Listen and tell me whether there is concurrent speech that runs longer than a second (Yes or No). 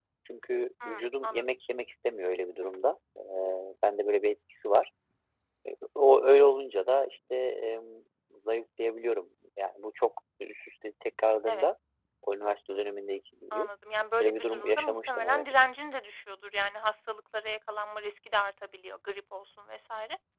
Yes